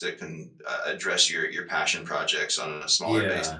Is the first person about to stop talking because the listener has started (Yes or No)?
Yes